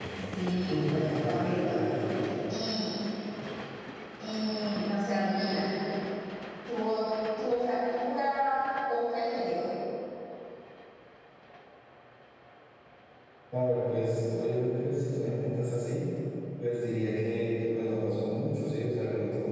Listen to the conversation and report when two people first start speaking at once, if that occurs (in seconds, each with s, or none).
0.7 s